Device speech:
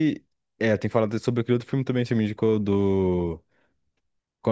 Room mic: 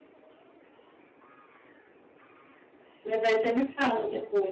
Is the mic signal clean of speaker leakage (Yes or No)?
Yes